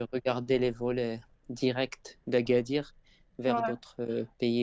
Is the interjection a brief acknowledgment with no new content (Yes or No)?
Yes